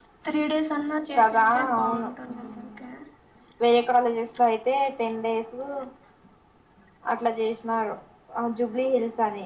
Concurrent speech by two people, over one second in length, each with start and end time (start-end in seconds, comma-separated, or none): 1.2-2.7